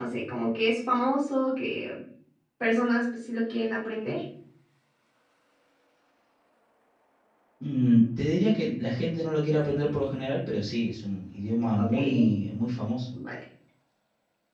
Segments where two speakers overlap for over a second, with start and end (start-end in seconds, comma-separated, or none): none